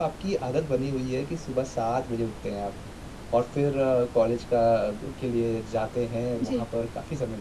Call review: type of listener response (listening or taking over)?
listening